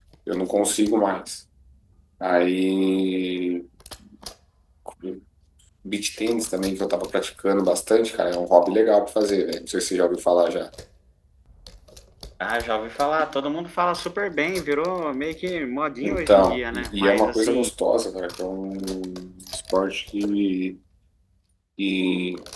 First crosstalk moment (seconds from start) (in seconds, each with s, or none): 16.0 s